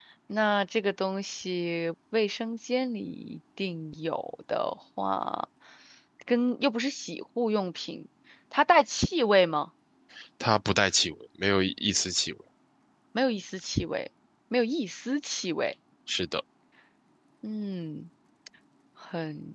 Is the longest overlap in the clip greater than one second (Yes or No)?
No